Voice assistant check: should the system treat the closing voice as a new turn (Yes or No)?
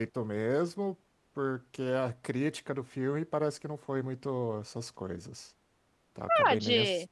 Yes